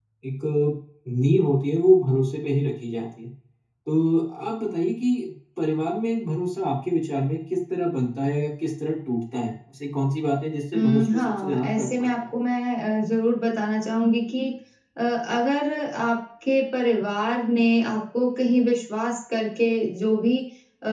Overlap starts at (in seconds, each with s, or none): 10.7 s